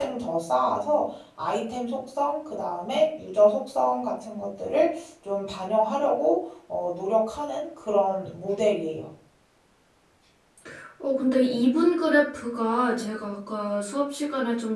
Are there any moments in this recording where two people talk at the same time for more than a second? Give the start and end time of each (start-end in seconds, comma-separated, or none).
none